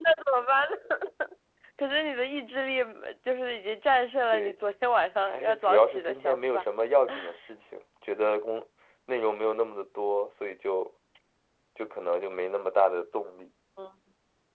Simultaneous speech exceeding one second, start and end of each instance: 5.3-6.6

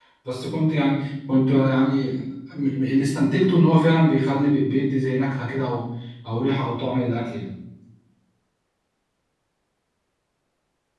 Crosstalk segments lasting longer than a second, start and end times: none

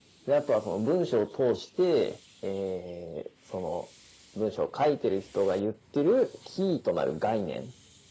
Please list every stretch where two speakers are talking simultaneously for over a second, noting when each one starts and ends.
none

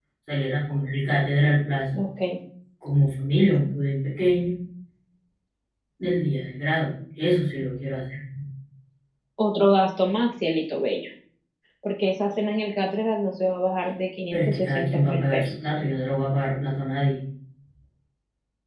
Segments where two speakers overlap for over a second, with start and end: 14.3-15.5

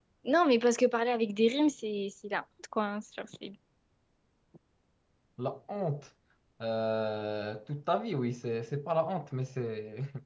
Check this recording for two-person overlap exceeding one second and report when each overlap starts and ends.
none

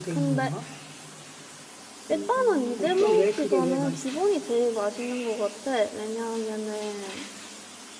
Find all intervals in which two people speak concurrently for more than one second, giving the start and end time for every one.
2.1-4.2

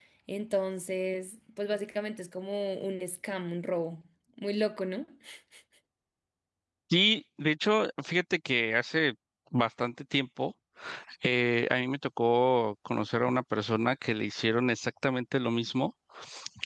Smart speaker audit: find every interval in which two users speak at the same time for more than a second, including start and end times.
none

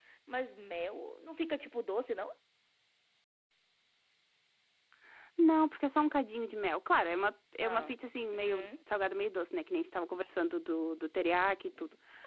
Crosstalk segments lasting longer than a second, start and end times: none

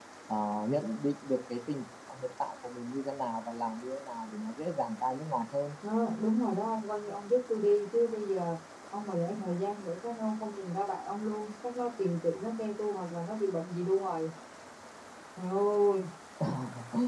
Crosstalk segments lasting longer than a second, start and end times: none

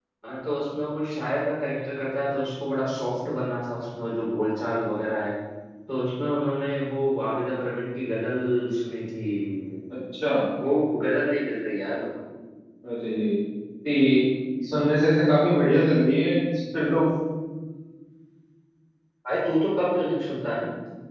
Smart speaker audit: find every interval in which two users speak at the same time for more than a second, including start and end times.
none

